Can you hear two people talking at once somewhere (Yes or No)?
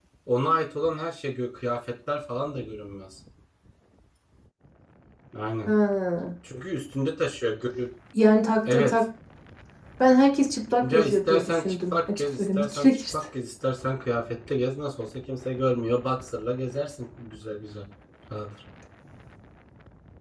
Yes